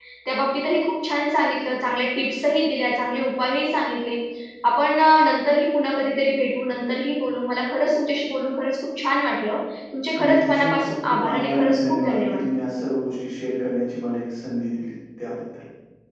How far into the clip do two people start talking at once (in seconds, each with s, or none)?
10.2 s